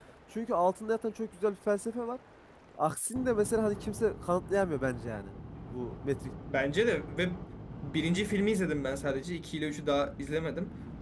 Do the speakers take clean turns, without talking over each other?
Yes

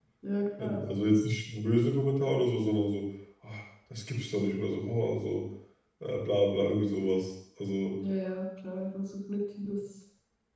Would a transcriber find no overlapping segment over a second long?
Yes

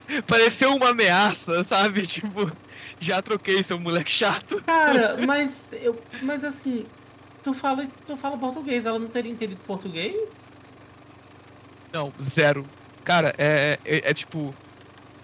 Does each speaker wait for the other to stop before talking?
Yes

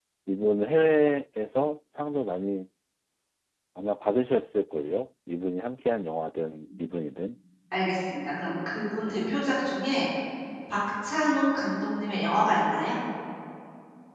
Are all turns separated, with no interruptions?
Yes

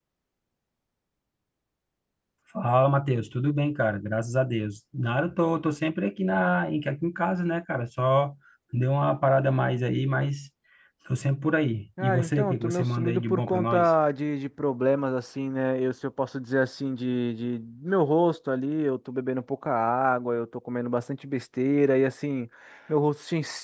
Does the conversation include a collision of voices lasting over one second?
Yes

